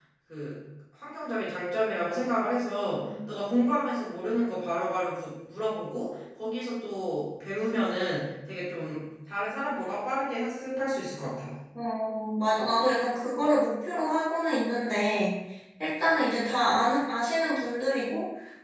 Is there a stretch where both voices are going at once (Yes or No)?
No